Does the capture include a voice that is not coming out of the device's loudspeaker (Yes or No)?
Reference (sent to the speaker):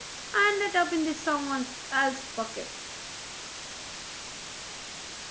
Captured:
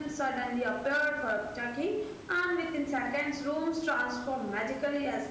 Yes